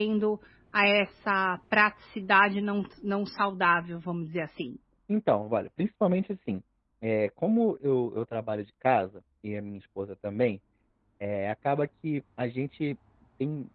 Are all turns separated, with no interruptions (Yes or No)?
Yes